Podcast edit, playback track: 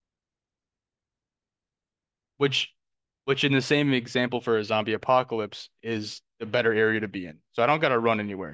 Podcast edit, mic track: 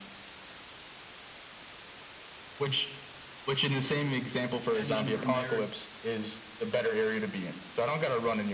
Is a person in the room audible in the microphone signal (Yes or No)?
Yes